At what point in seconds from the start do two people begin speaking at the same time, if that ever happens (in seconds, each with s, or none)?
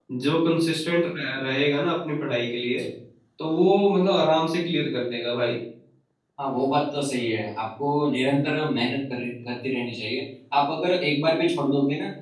none